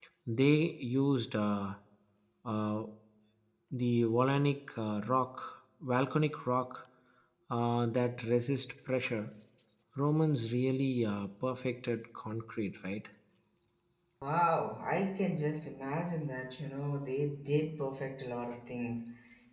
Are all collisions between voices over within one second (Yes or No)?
Yes